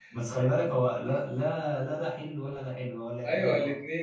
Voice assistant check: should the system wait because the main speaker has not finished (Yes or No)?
No